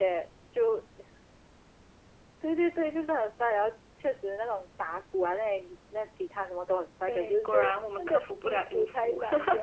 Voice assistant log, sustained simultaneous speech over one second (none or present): present